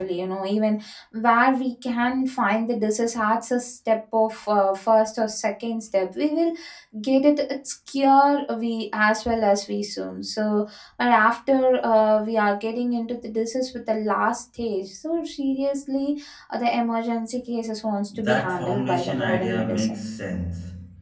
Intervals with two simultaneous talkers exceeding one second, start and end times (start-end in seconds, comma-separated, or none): 18.2-20.0